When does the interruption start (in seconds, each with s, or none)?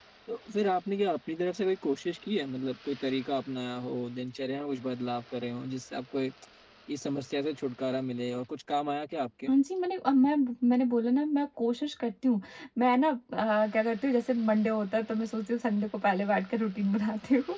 none